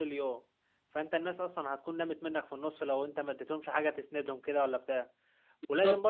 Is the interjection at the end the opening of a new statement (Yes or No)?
No